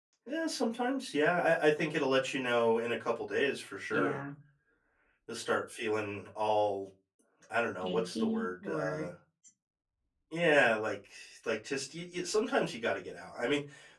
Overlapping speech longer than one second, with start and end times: 7.8-9.1

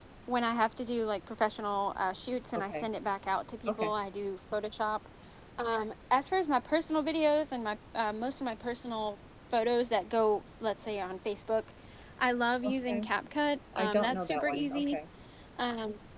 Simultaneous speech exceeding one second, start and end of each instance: 13.8-15.0

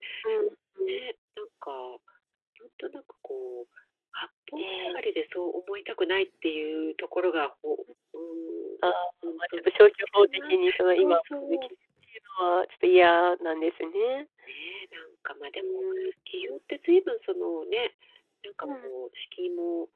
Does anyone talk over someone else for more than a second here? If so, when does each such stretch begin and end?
10.3-11.7

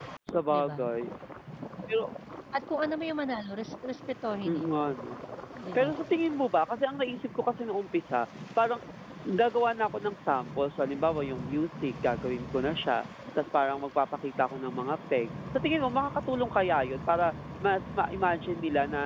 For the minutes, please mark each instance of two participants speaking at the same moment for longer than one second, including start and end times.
none

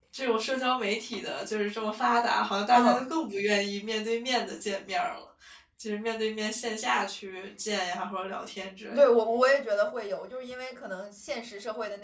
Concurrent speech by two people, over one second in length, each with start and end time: none

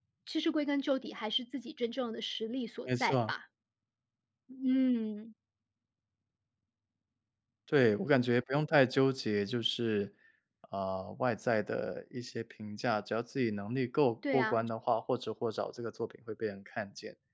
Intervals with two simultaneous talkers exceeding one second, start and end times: none

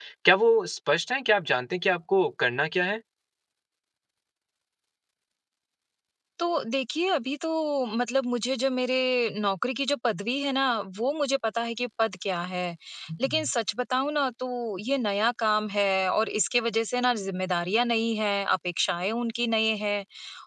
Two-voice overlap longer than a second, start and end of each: none

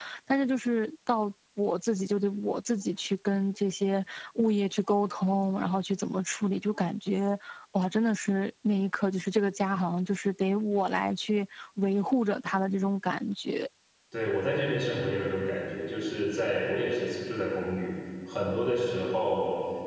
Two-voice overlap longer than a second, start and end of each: none

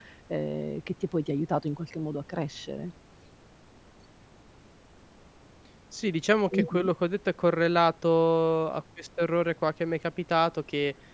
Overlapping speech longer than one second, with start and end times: none

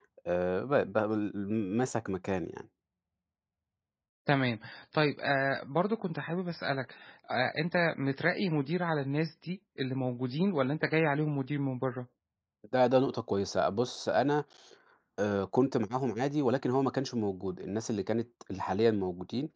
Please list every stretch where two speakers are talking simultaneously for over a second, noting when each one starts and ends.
none

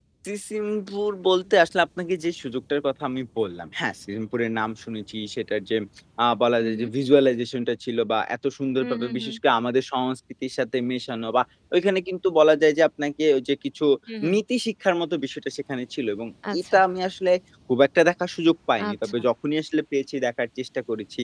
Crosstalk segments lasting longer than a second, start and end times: none

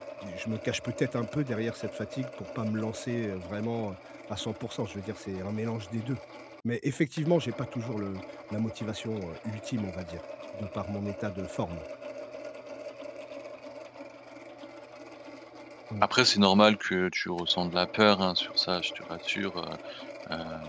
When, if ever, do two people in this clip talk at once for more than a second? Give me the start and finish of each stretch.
none

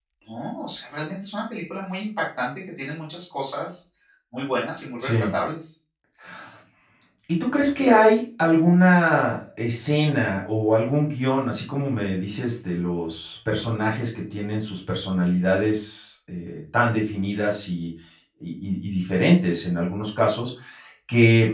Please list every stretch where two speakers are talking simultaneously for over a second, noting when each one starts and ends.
none

